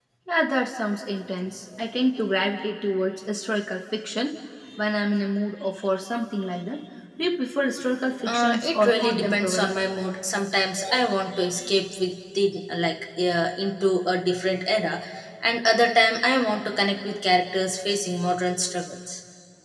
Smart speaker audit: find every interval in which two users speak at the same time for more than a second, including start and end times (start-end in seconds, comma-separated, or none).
8.3-9.7